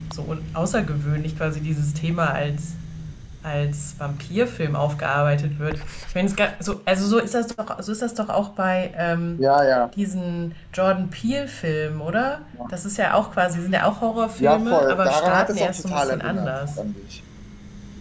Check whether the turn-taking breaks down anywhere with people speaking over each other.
Yes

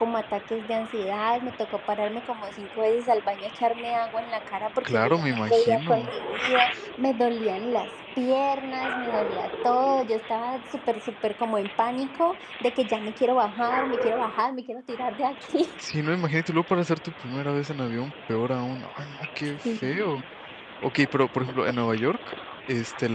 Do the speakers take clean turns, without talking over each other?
No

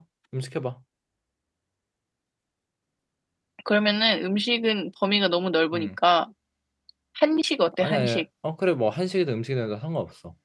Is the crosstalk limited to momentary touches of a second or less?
Yes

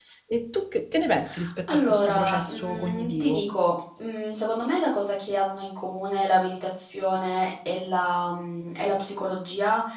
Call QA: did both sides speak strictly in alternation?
No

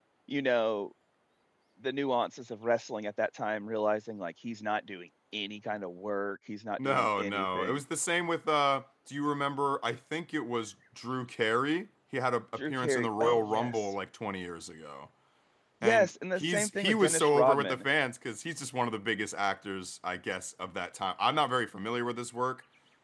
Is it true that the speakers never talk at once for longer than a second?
No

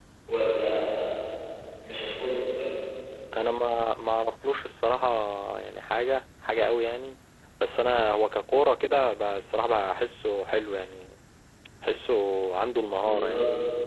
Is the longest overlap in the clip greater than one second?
No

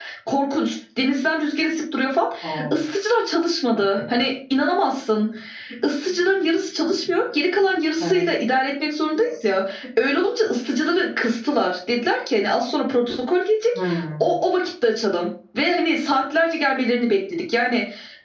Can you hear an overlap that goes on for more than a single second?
No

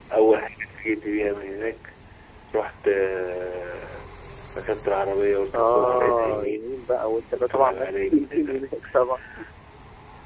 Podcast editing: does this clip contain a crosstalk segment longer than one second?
Yes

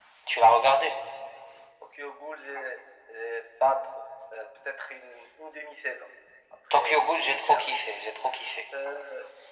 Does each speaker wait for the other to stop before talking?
No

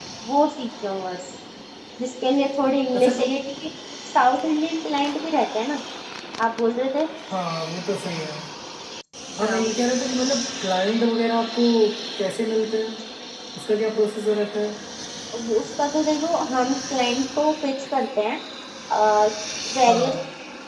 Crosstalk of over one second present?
No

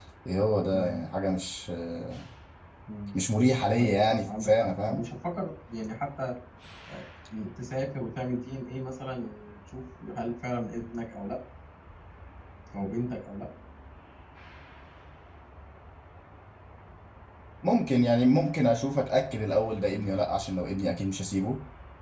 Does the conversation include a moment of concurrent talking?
Yes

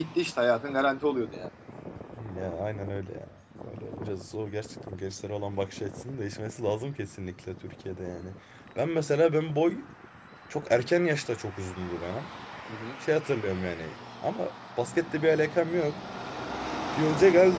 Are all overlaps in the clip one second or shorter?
Yes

